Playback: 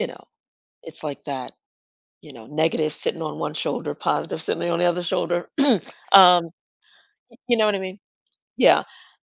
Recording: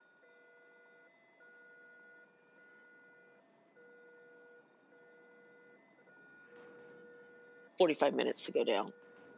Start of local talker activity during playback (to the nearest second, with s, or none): 8 s